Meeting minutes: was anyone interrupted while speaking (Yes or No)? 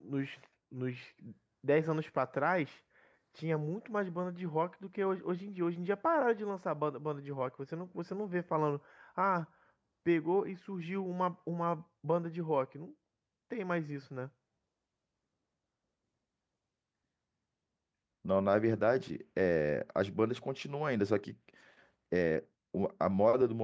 No